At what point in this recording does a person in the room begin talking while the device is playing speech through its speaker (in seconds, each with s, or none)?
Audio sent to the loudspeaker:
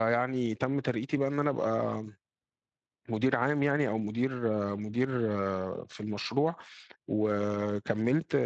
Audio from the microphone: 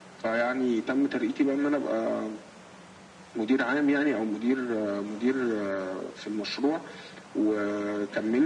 none